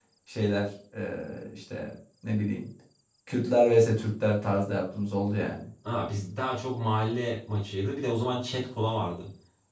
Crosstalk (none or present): none